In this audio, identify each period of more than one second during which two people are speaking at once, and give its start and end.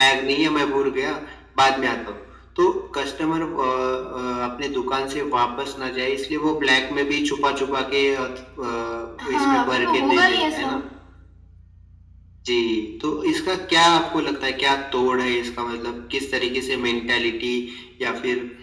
9.2-10.7

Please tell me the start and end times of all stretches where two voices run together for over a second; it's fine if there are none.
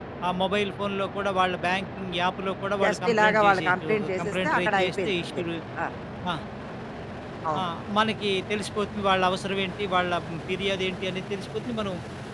2.8-5.1

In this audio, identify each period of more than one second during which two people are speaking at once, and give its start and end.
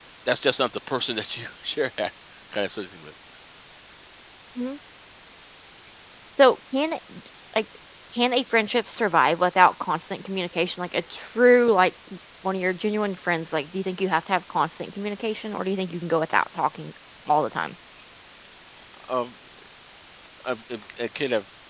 none

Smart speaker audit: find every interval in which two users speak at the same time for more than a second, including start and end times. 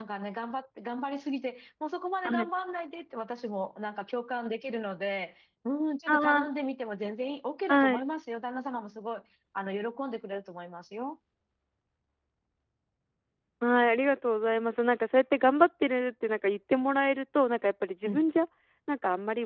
none

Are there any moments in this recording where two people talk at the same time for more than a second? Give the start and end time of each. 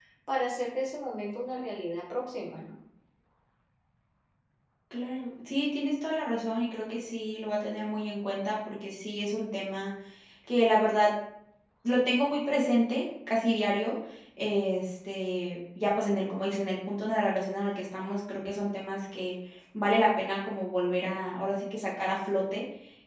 none

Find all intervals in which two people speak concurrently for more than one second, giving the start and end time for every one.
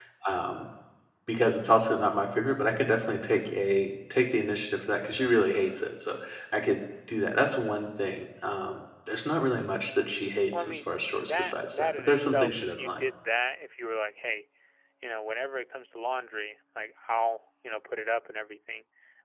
10.6-13.0

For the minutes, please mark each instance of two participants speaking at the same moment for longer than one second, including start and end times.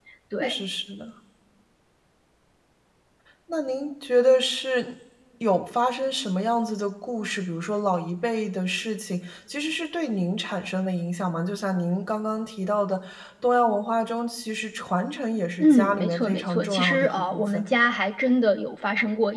15.6-17.6

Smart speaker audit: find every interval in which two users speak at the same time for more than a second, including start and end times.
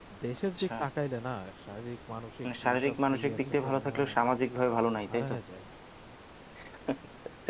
2.4-4.2

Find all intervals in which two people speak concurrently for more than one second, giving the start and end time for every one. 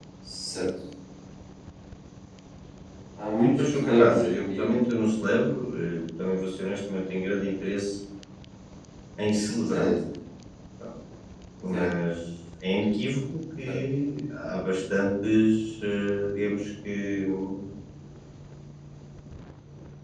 3.6-4.8

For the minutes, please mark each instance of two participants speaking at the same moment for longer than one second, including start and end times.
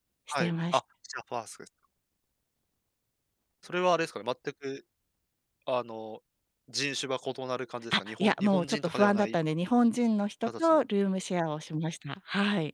7.9-9.4

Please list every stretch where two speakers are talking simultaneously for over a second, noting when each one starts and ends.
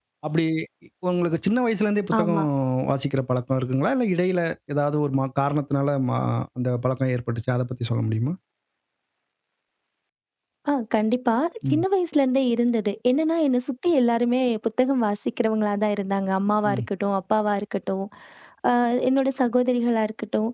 none

